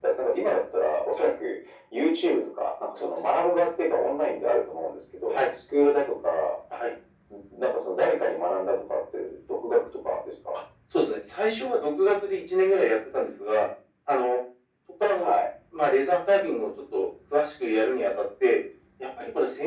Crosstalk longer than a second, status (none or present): none